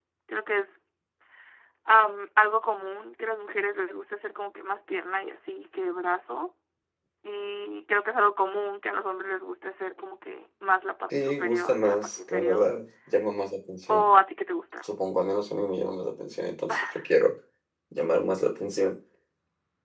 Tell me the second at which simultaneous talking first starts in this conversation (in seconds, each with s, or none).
11.1 s